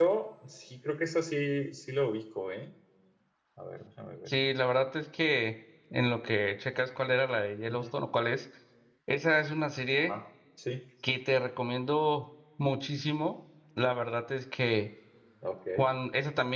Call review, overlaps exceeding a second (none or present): none